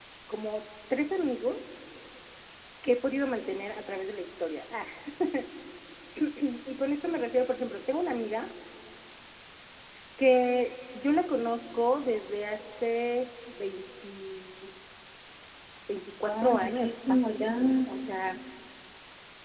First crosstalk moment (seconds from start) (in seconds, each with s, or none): 16.2 s